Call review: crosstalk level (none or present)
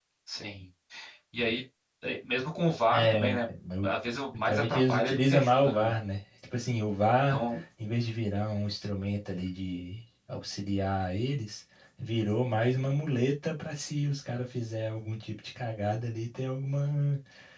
present